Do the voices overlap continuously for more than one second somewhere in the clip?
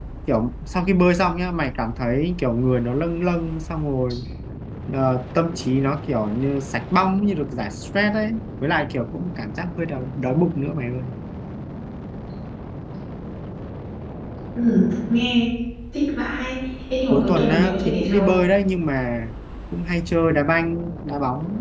Yes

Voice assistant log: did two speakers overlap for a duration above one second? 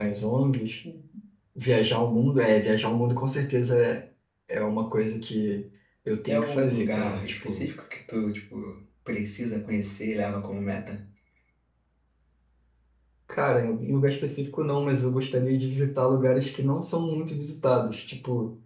Yes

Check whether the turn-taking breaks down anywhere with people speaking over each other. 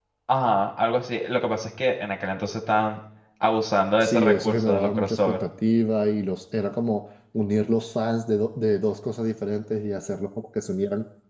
Yes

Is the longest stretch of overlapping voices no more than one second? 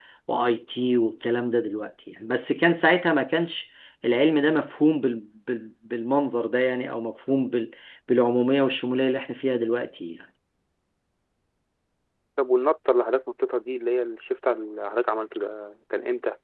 Yes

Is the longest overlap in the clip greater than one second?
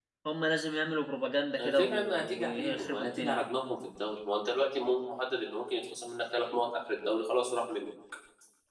Yes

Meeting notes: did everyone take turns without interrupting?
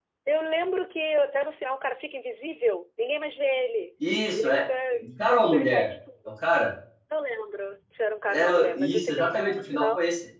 No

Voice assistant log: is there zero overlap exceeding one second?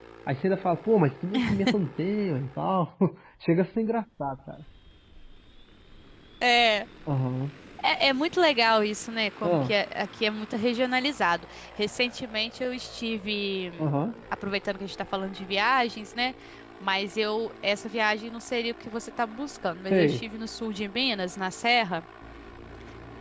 Yes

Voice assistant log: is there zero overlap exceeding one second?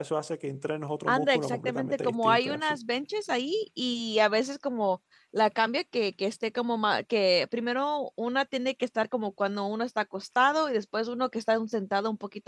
No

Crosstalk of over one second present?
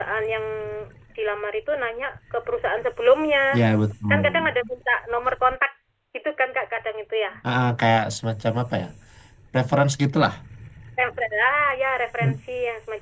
No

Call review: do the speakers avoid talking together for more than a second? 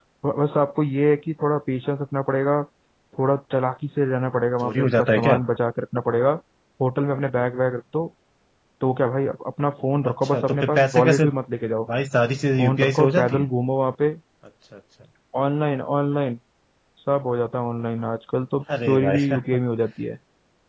No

